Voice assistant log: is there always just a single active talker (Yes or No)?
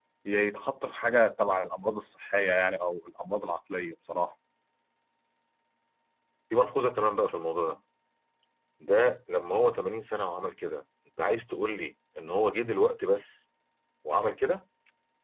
Yes